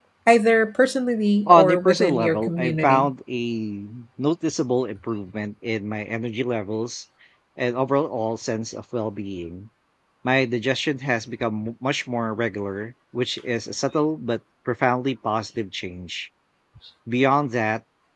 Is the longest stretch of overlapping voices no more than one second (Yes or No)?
No